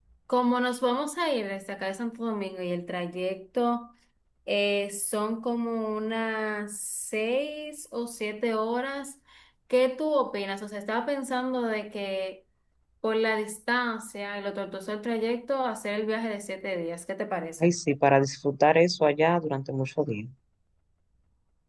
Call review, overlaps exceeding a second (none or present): none